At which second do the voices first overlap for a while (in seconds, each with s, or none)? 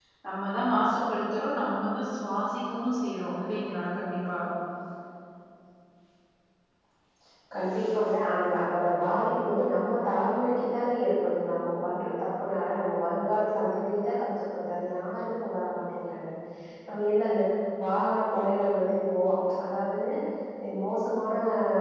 none